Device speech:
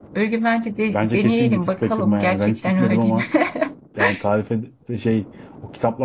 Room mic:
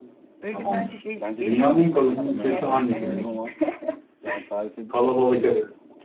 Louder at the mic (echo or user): user